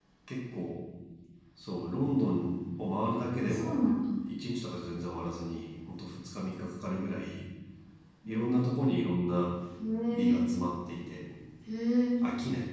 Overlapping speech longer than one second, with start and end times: none

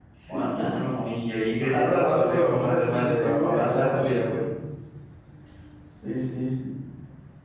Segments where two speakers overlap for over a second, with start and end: 1.6-4.2

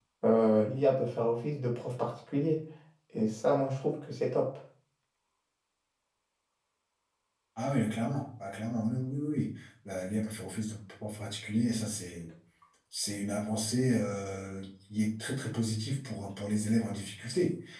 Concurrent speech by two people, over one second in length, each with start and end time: none

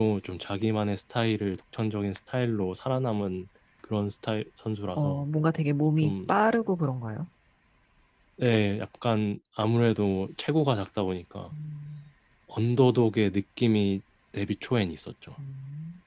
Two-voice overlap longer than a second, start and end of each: none

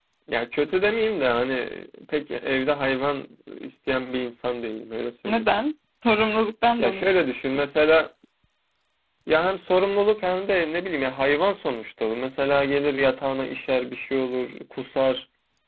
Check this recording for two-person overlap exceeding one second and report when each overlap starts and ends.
none

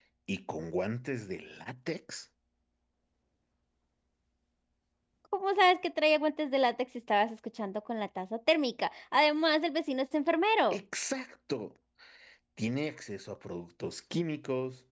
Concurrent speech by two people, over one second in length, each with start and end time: none

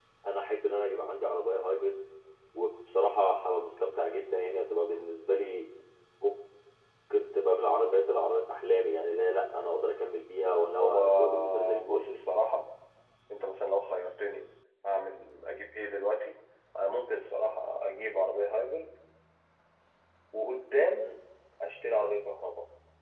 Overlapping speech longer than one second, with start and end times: 10.8-12.2

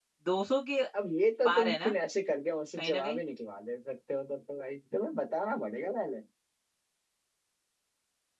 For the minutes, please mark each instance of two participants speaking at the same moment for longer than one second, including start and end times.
none

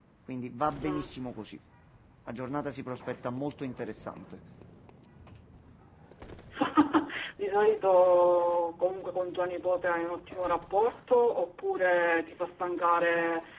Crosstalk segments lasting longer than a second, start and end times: none

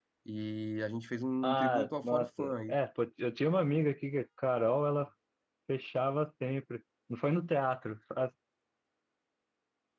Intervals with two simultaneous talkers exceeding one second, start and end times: 1.4-2.8

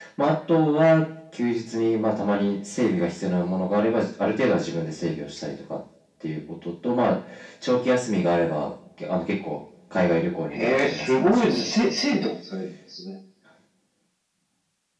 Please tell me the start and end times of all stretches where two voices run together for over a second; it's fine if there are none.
10.6-11.9

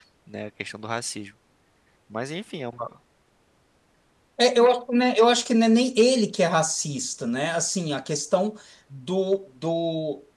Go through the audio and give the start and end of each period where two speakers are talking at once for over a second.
none

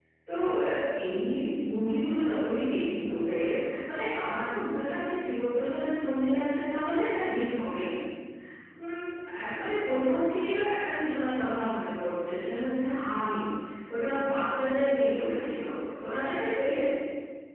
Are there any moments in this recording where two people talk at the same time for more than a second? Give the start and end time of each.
none

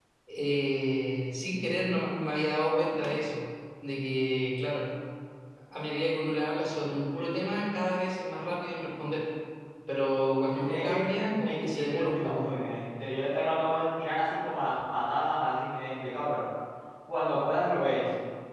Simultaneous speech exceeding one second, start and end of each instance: 10.5-12.5

